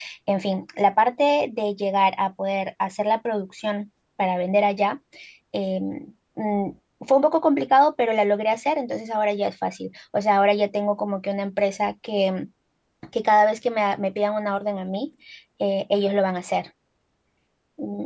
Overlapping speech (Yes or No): No